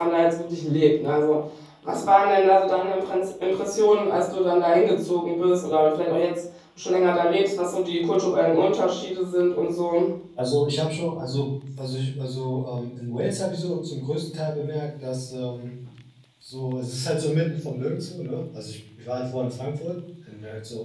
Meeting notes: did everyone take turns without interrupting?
Yes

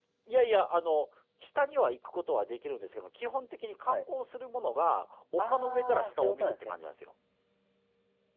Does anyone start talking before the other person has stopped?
Yes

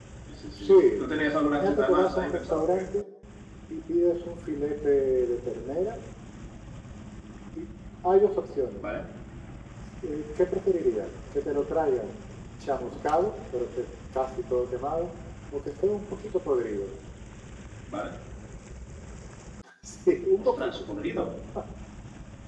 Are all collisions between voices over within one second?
No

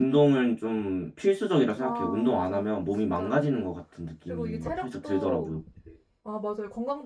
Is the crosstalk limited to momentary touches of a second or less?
No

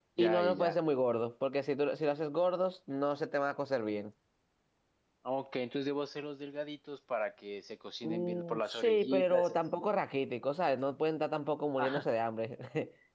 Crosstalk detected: Yes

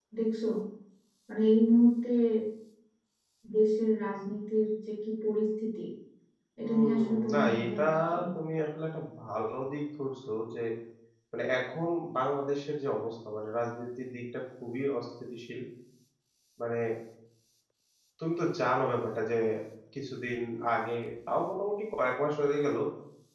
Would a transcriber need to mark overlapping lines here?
Yes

